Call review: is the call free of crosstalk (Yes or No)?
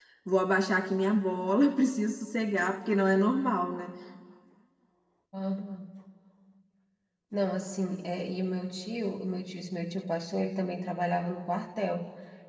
Yes